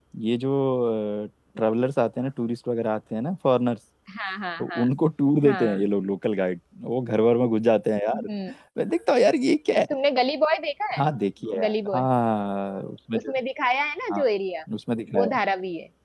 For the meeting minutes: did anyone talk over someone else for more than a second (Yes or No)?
No